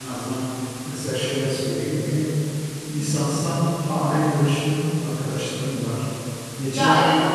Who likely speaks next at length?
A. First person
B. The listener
B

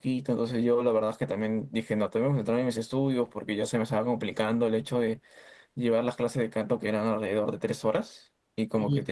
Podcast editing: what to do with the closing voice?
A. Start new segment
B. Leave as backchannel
B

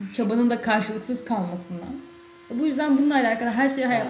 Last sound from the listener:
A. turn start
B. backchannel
A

